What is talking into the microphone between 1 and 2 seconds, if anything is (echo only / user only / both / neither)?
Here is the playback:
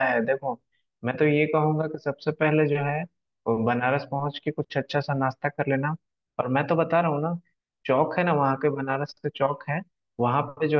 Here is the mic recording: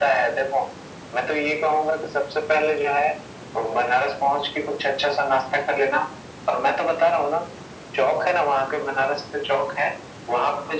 echo only